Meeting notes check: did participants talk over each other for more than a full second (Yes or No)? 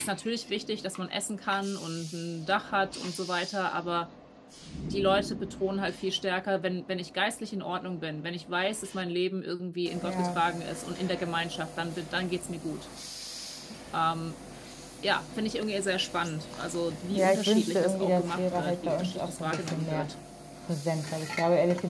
Yes